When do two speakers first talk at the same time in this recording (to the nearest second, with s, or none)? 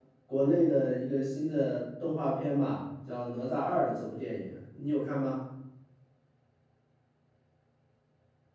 none